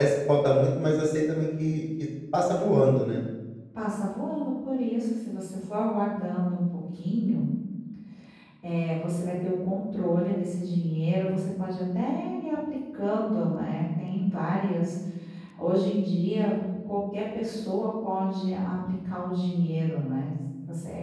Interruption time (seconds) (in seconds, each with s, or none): none